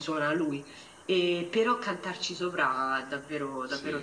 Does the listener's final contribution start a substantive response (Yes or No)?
Yes